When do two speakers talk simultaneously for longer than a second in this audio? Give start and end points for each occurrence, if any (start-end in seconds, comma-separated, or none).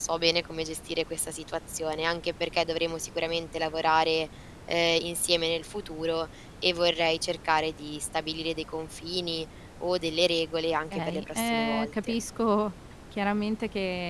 10.9-12.1